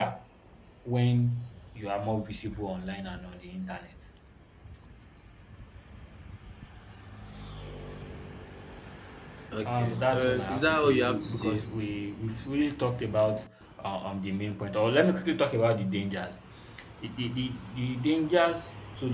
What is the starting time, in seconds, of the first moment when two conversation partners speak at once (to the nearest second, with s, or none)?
10 s